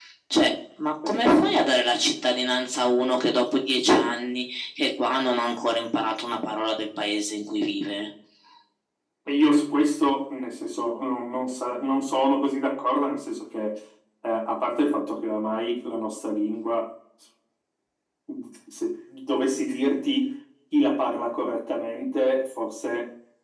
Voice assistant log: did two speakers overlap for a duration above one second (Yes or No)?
No